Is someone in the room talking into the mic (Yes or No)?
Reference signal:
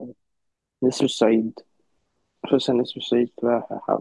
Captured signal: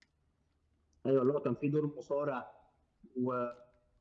Yes